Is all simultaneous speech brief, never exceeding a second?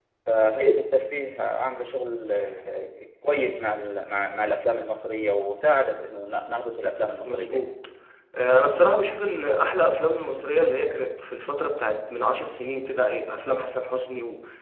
Yes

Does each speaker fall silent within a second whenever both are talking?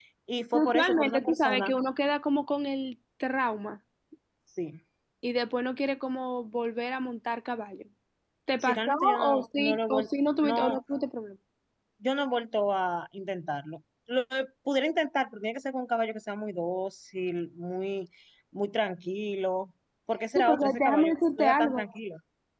No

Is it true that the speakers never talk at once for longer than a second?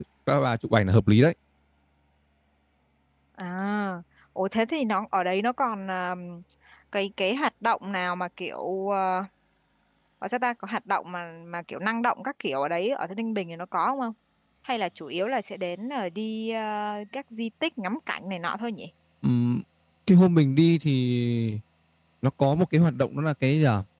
Yes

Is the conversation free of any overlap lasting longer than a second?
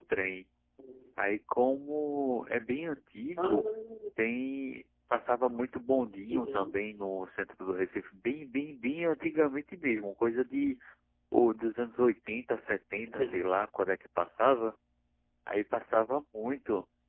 Yes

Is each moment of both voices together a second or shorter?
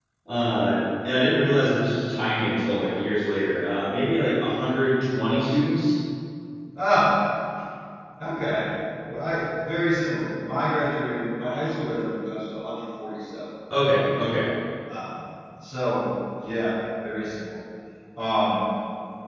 Yes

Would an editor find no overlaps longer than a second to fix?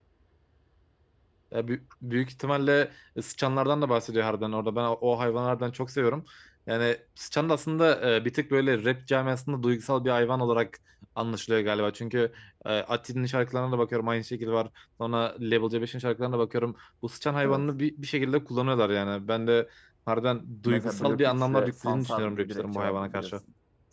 No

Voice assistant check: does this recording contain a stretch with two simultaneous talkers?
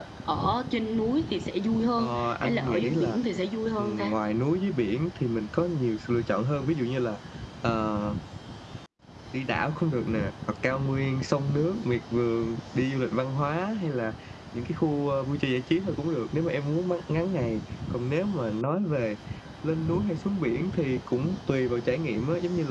Yes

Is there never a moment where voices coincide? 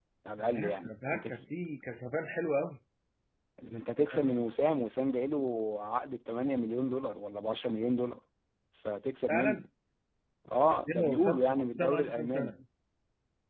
No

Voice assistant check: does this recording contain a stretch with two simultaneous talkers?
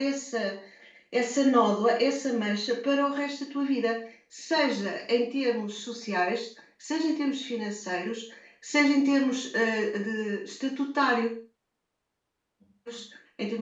No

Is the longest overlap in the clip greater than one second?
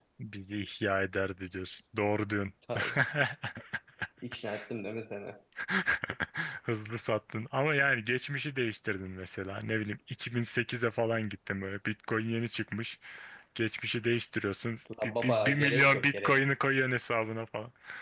Yes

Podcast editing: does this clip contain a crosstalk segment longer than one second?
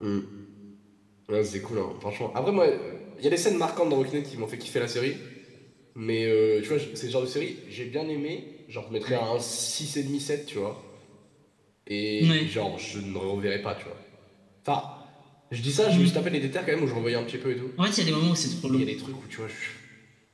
No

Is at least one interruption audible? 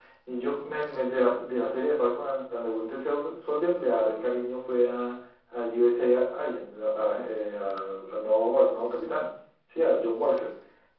No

